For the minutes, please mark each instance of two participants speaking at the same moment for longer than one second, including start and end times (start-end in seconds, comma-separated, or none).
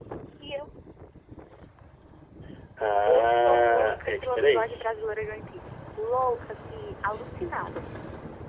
3.1-4.8